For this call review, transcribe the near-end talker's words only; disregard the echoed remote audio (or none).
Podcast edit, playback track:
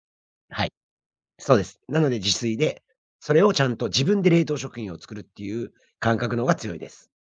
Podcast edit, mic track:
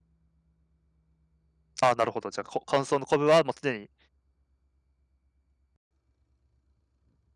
ああ、なるほど。じゃあ、こ乾燥の昆布はもう常に、